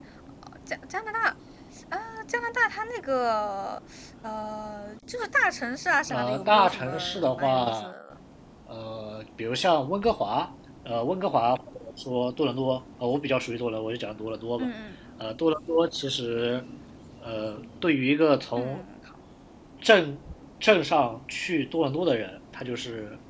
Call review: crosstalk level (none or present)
present